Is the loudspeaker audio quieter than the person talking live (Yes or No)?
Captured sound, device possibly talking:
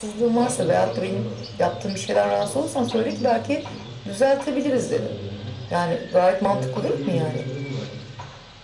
No